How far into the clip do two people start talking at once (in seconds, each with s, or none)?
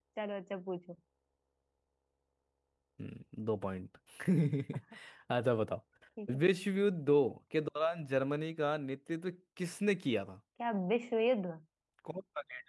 none